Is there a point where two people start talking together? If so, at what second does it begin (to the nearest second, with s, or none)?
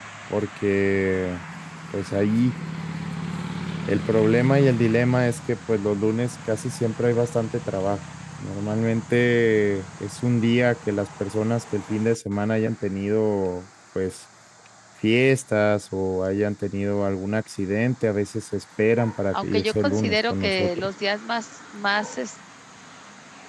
19 s